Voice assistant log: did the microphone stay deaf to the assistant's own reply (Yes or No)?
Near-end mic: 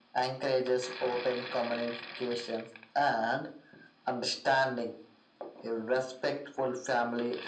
No